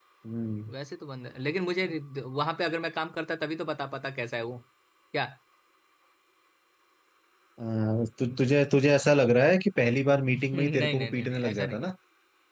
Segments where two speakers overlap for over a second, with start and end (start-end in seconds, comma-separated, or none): 10.5-11.9